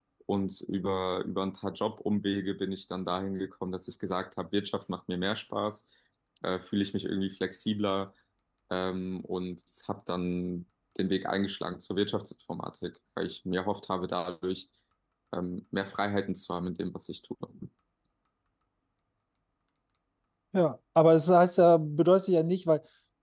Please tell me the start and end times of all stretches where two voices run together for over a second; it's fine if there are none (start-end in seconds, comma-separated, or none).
none